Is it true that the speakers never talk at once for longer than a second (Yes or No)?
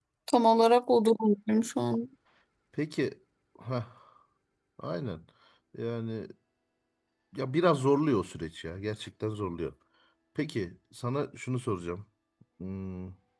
Yes